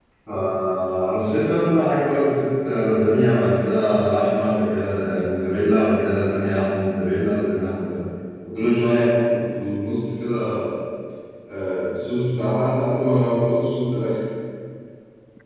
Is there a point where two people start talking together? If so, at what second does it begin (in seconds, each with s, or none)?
none